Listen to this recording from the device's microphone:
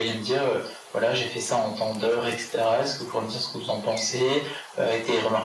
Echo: present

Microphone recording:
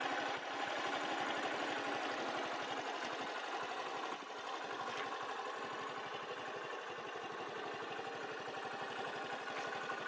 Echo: none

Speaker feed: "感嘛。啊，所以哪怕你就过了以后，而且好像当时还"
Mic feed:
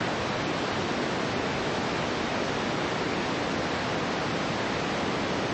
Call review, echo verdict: none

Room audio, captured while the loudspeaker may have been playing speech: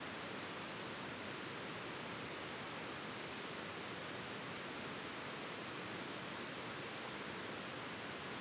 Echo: none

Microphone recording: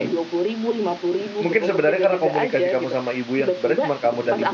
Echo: present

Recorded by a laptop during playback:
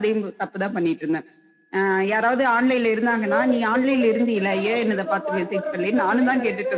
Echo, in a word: present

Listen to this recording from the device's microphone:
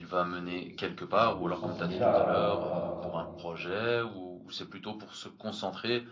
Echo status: present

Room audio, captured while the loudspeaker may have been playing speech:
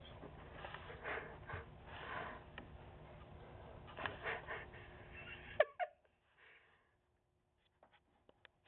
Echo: none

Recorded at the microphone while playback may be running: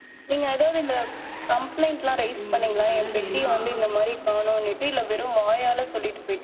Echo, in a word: present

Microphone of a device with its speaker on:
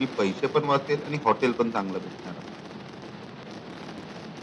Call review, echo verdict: present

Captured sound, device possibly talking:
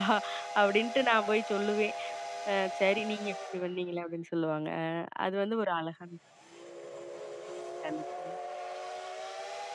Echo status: none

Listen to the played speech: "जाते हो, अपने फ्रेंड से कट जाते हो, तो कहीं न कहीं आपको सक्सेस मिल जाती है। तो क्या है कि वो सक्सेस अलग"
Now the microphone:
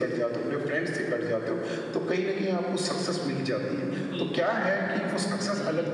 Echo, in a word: present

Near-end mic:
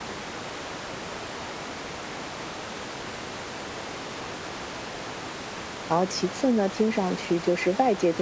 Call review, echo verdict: none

